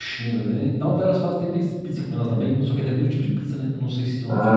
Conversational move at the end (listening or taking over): taking over